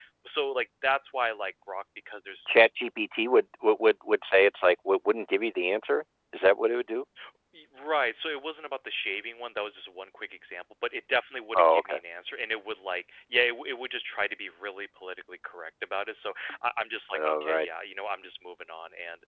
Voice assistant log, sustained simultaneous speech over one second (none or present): none